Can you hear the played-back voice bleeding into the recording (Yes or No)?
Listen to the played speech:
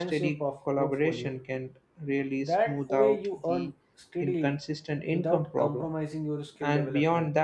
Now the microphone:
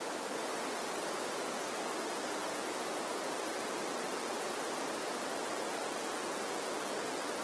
No